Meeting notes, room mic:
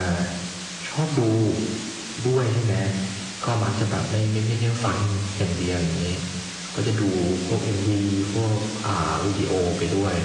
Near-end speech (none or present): none